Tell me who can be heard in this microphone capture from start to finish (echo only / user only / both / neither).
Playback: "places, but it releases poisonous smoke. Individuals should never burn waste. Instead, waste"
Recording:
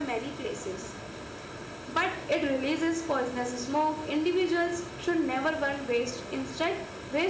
echo only